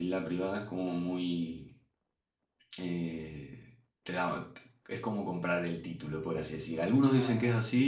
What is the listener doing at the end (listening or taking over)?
listening